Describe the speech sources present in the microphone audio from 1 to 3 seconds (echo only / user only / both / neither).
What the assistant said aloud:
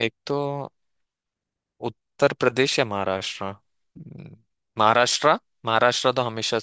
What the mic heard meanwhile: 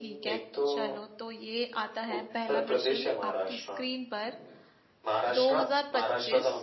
both